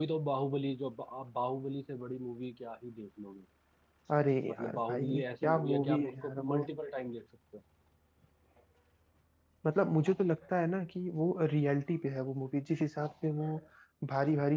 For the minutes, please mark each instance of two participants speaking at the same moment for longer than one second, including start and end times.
4.5-6.6

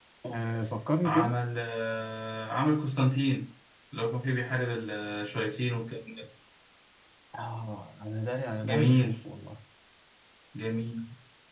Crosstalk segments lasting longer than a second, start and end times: none

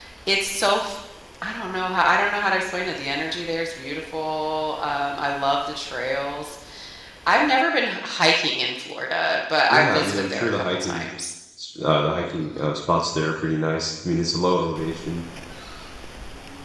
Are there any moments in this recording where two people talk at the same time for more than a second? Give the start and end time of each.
9.7-11.0

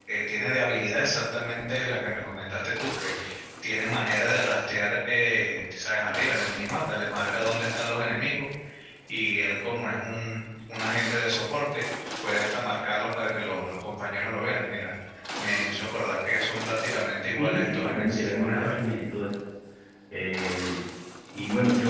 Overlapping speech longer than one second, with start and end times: 17.4-18.8

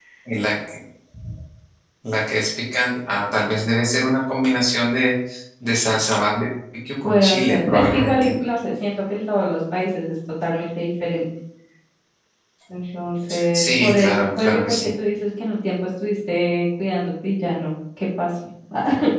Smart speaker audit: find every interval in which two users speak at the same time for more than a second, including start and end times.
7.0-8.3, 13.5-14.9

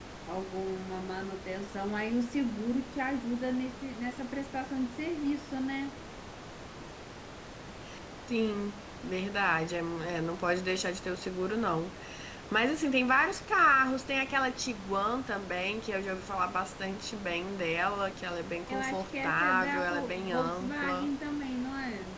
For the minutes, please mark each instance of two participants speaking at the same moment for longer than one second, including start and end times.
18.7-21.1

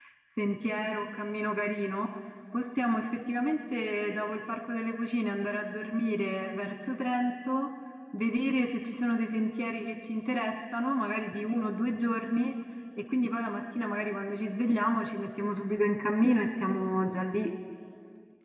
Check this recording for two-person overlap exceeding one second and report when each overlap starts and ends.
none

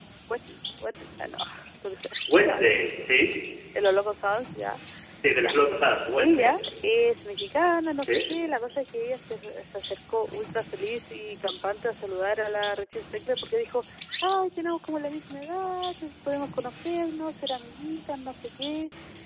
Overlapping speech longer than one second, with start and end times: none

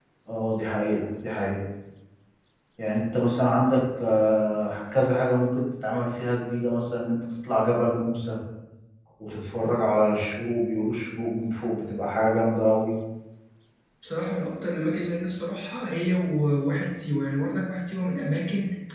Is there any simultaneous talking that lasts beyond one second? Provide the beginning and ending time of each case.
none

